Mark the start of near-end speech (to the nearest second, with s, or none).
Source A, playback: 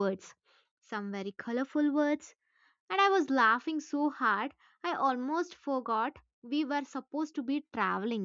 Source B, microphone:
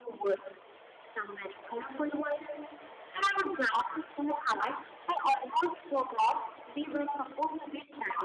none